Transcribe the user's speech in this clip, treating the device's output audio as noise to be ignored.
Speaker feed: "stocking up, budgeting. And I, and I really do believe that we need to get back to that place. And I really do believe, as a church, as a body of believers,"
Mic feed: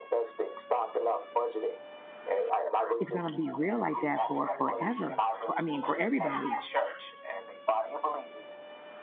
It's going to be real like that for forever. For I mean, for everybody.

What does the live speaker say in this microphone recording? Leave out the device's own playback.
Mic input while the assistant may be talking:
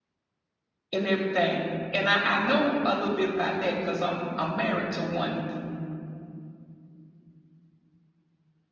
and everything. And I, I know a little bit about that because I'm I'm married to one

